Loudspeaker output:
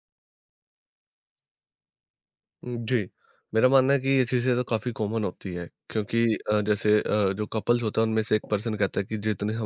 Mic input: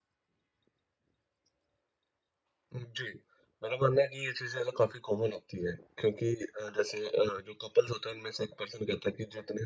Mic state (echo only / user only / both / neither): echo only